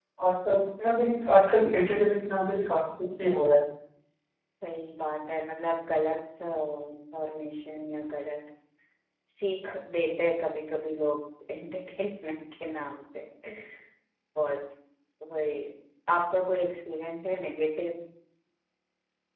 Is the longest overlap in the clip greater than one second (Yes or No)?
No